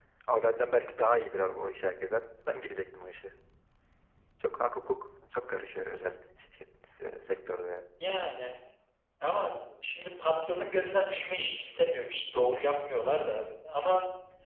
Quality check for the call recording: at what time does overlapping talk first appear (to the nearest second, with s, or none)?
none